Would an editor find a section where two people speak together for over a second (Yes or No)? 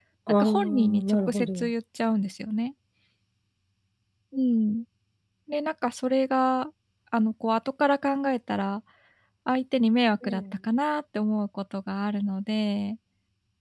Yes